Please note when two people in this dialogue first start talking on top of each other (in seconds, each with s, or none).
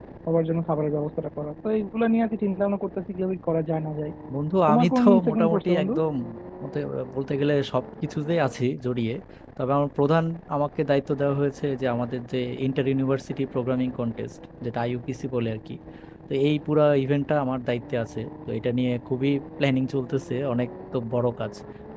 4.7 s